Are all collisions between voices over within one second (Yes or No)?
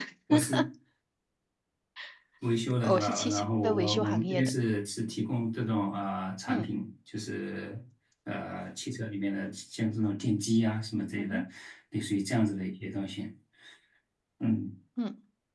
No